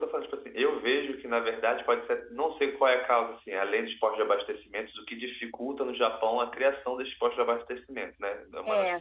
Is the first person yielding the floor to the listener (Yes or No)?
Yes